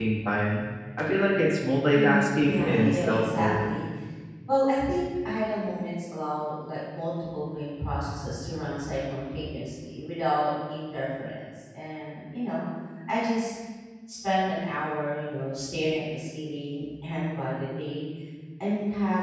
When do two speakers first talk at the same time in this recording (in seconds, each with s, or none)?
1.9 s